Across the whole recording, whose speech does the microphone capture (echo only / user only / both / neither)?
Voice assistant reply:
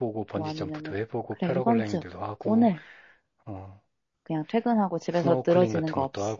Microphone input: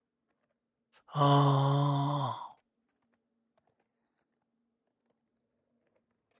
user only